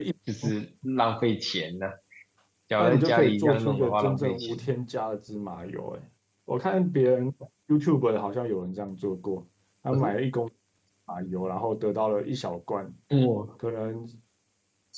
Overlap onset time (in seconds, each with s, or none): 2.8 s